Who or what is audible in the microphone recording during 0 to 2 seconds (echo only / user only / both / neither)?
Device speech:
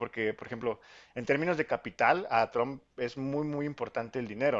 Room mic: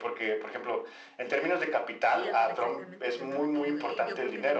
echo only